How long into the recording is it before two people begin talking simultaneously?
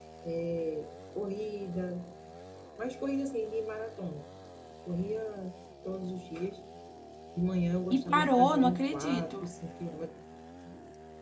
7.9 s

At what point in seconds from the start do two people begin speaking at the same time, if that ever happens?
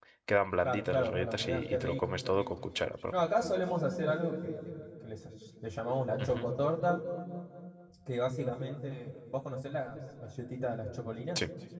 0.6 s

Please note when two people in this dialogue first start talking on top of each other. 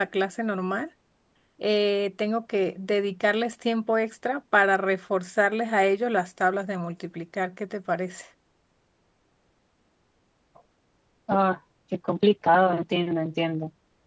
none

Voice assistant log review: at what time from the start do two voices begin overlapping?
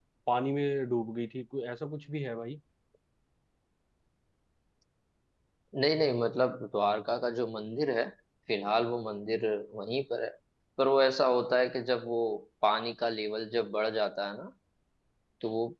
none

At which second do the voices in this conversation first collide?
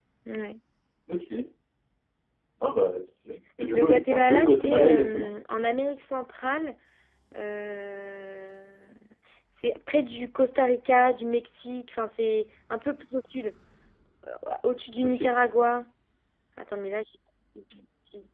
3.7 s

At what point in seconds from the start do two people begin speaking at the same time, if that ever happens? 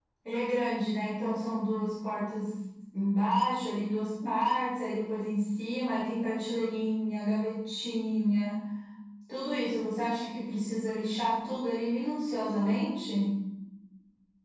none

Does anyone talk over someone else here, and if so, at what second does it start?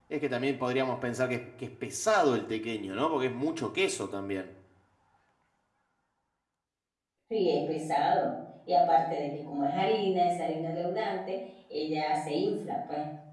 none

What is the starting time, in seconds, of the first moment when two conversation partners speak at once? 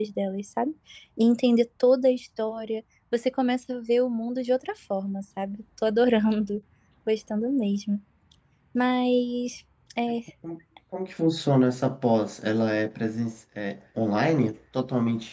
none

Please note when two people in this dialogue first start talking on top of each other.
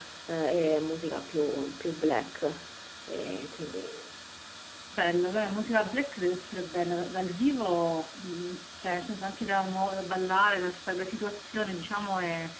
none

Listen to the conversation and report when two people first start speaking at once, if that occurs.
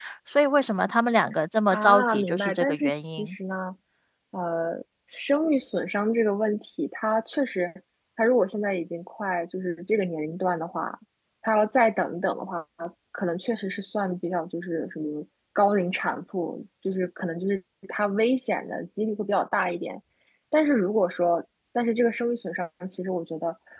1.7 s

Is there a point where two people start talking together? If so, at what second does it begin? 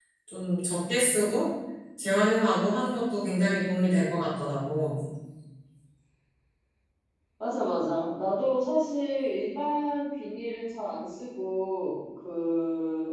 none

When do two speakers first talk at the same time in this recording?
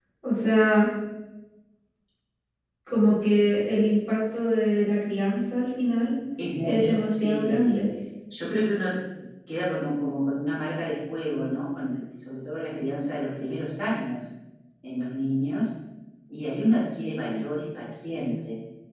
6.6 s

